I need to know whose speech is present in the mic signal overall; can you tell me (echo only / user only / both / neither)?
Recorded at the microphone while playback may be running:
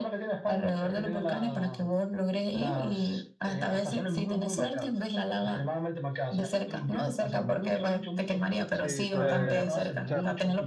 both